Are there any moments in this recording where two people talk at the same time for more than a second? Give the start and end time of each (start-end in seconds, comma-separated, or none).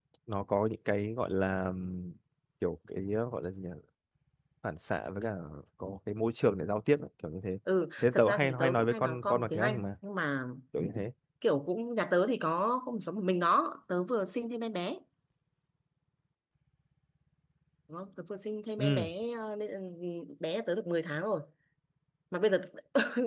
8.0-9.9